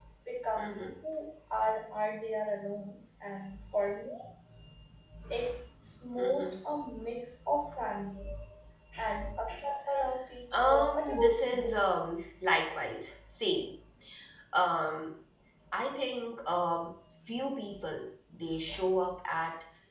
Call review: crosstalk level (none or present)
present